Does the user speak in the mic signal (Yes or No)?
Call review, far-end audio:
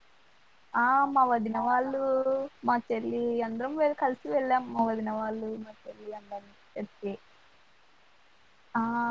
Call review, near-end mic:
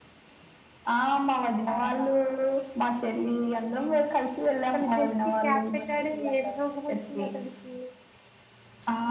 Yes